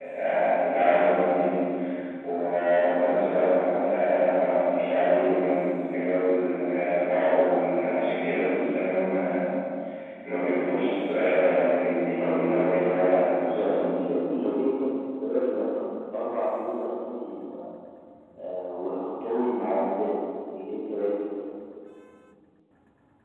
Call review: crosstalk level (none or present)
present